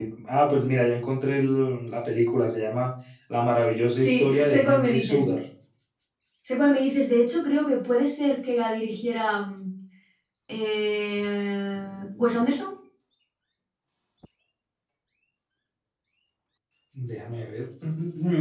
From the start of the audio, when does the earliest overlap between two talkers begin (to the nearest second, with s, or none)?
4 s